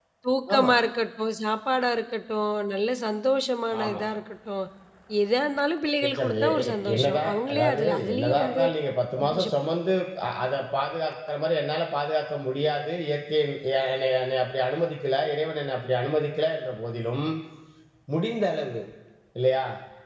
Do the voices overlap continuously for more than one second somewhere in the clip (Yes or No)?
Yes